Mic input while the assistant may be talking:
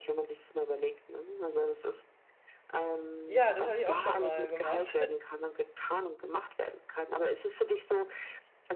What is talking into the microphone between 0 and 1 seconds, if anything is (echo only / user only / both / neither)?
echo only